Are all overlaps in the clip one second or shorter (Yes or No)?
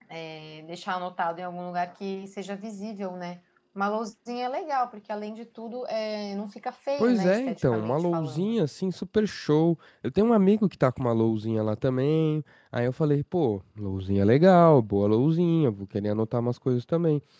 No